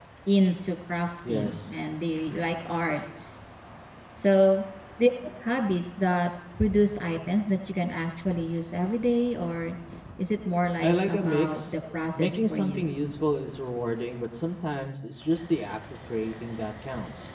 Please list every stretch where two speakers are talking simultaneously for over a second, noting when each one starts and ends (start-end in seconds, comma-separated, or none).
10.8-12.9